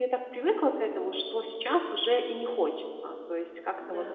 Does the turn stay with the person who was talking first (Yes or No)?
Yes